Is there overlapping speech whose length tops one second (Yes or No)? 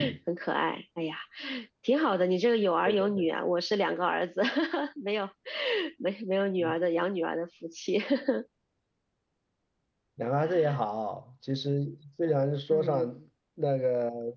No